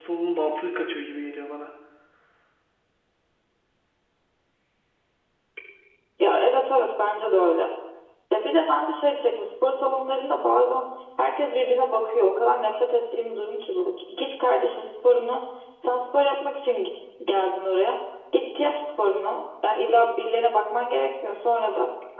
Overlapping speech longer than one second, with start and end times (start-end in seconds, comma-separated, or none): none